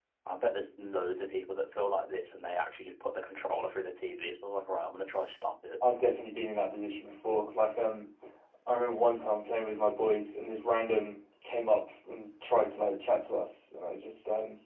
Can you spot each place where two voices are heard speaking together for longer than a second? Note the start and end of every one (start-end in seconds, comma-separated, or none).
none